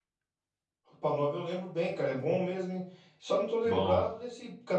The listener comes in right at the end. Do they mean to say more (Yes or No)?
No